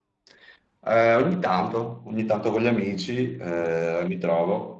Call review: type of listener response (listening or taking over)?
listening